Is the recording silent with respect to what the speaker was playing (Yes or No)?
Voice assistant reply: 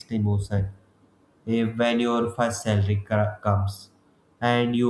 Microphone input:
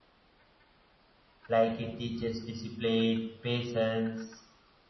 Yes